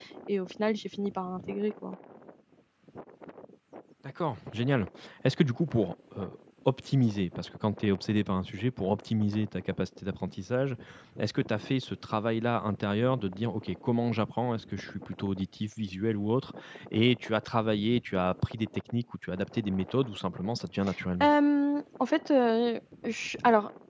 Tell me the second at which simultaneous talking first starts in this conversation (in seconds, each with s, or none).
none